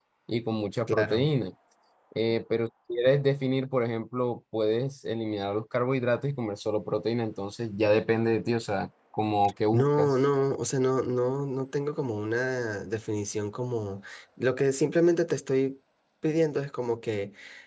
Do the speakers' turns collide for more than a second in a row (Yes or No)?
No